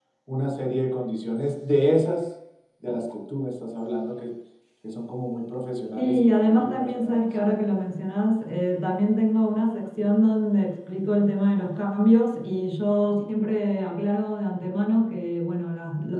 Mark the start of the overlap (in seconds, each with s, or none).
6.0 s